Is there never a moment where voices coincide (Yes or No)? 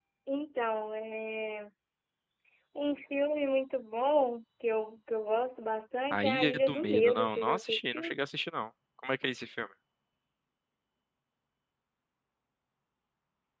No